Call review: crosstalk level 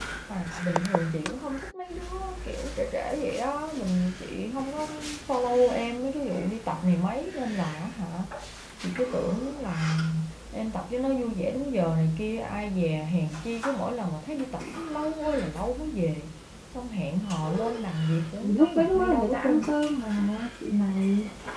present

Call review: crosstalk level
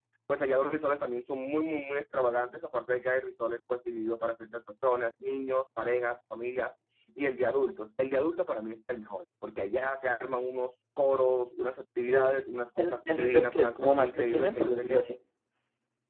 present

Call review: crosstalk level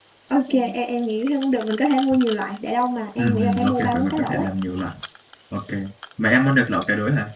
present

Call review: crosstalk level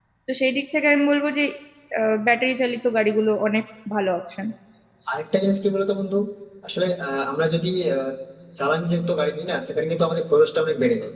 none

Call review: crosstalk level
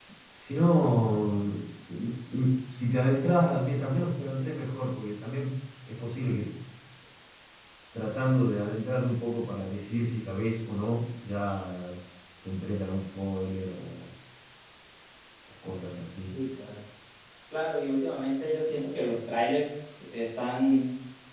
none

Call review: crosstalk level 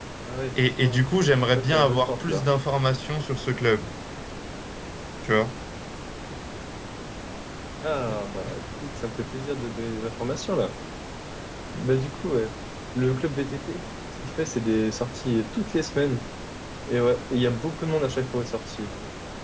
present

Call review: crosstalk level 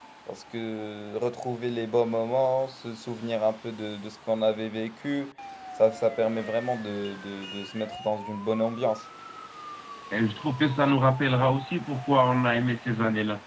none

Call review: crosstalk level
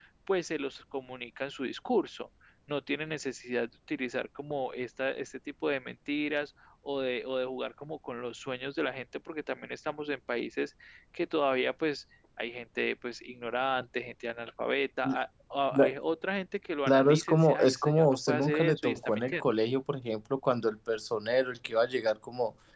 present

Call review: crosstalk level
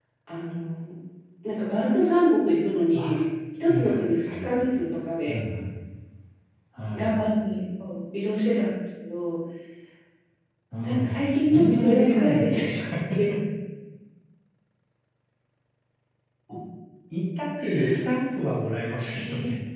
present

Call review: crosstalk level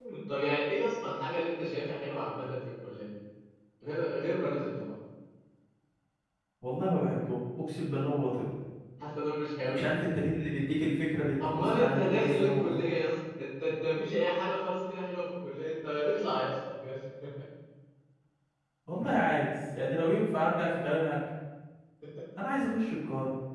present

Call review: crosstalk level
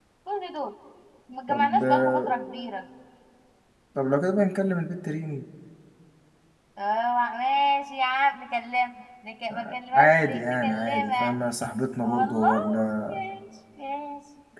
present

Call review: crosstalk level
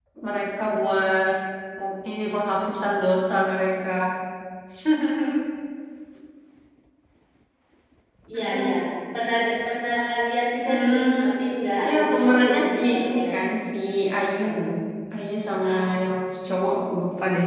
present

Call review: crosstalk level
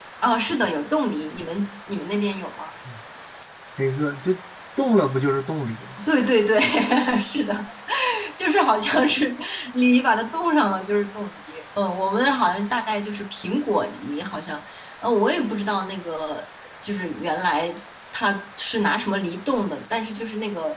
none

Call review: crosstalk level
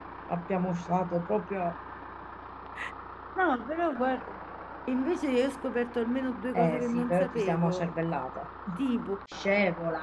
present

